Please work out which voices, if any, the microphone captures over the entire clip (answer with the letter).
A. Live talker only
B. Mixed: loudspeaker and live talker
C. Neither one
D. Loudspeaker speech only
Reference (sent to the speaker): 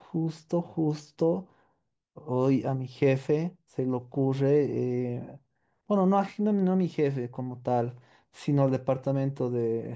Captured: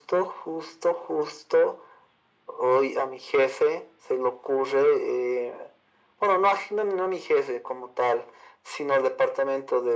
D